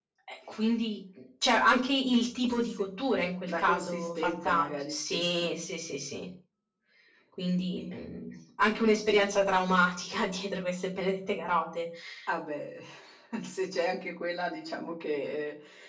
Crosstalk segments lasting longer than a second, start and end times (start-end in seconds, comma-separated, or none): 3.5-5.5